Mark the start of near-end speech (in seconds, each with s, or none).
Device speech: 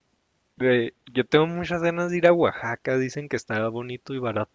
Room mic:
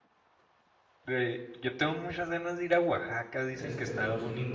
3.5 s